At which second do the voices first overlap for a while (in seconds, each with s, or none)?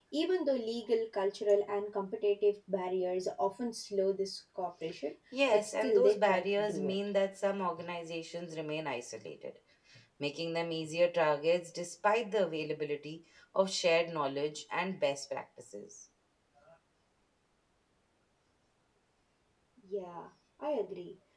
5.3 s